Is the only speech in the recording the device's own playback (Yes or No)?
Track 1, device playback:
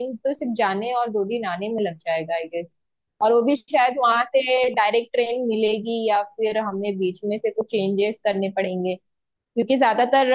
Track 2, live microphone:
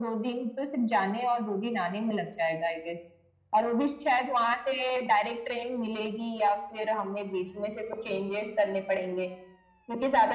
Yes